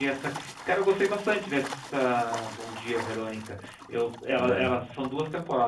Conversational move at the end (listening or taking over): listening